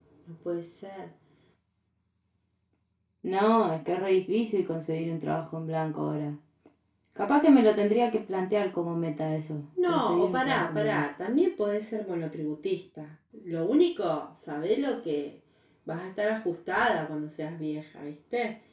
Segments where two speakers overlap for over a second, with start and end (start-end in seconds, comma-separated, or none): 9.8-11.1